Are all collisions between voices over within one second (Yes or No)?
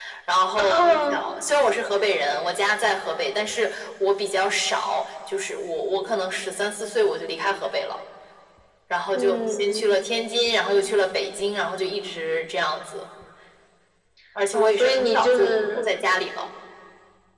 No